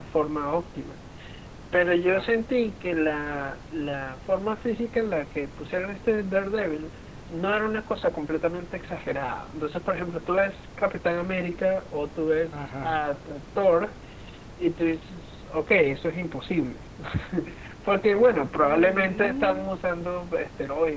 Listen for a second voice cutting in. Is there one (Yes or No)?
Yes